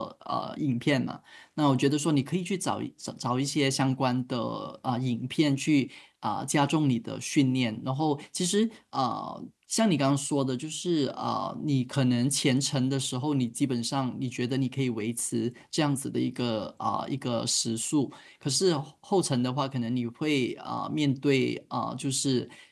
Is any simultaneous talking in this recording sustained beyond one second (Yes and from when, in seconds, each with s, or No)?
No